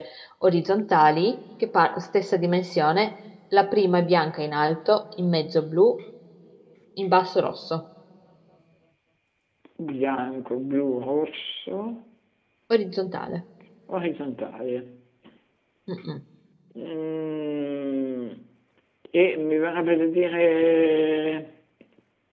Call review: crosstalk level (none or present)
none